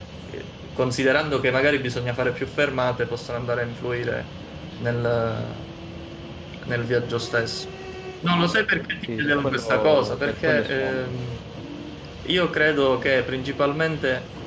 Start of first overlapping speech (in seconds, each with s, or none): 9.1 s